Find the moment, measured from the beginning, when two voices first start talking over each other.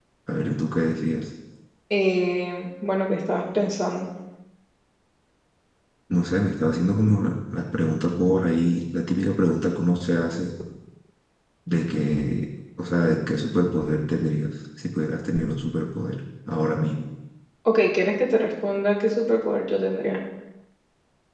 none

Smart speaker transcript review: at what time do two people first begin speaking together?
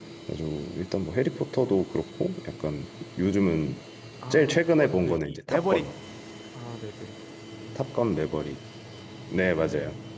4.3 s

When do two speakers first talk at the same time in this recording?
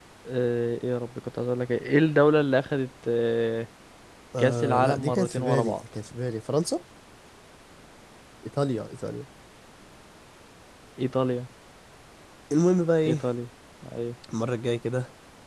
4.4 s

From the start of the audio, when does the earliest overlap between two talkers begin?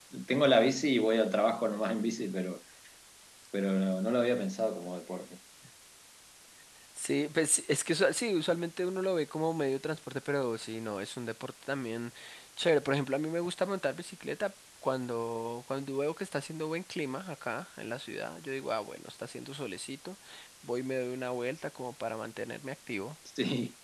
none

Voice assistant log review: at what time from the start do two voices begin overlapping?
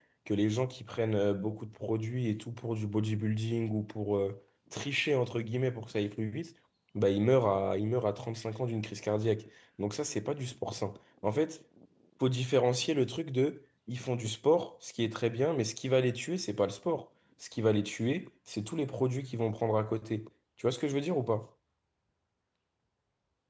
none

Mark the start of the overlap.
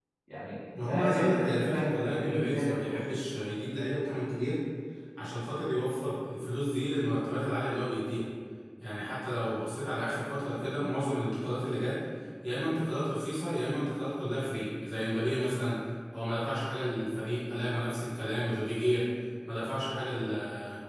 0.8 s

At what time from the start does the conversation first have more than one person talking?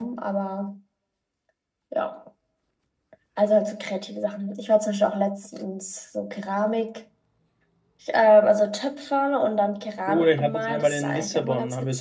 10.1 s

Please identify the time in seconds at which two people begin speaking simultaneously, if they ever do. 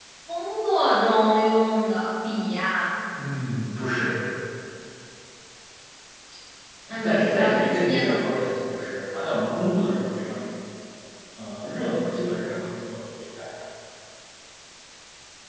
7.0 s

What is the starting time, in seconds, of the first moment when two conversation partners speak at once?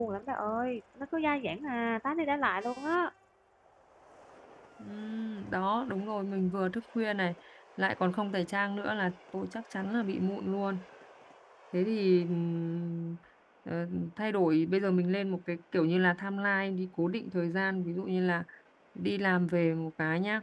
none

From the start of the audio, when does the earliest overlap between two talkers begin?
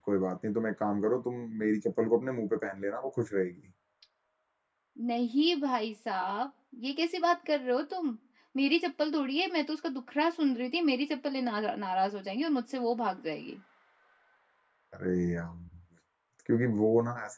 none

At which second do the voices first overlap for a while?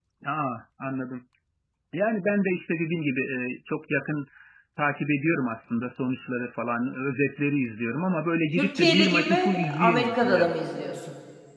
8.5 s

